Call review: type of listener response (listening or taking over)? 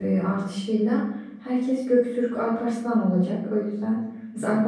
listening